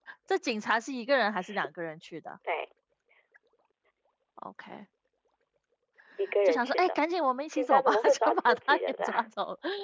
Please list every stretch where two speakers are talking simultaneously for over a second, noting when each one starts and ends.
7.5-9.2

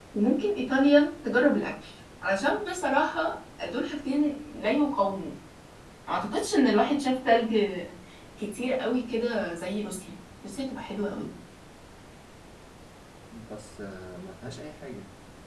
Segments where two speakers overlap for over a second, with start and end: none

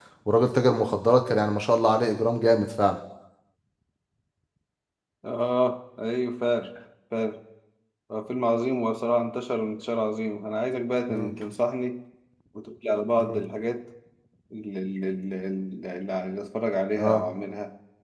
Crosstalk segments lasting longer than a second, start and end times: none

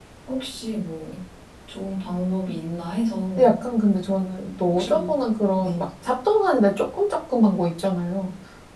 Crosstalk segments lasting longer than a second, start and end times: none

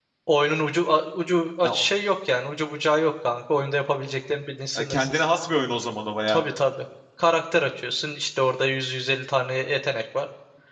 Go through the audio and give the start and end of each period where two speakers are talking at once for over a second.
none

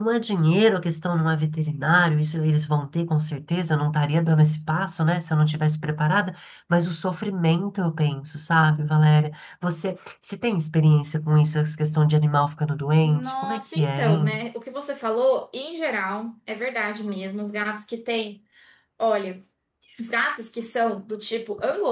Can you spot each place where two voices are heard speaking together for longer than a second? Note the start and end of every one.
13.0-14.3

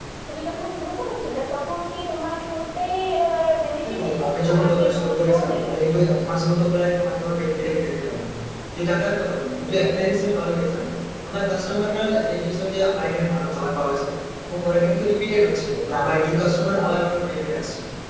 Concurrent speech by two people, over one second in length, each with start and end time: 3.8-5.9

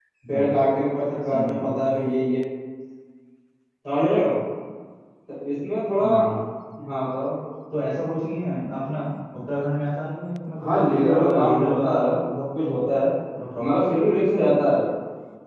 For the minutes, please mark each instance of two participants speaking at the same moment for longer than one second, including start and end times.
10.6-12.2

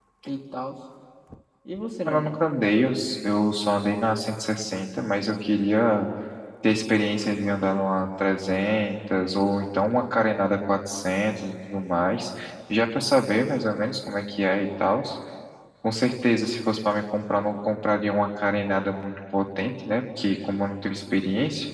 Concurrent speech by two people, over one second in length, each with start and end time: none

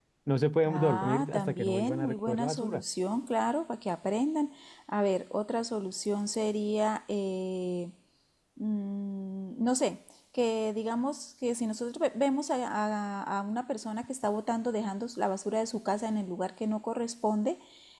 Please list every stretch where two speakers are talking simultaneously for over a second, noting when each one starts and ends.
0.7-2.8

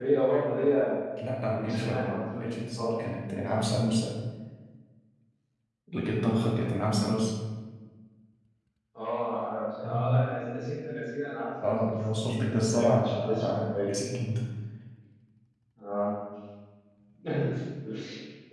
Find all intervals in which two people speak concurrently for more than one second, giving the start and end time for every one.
1.5-3.0, 11.7-14.1

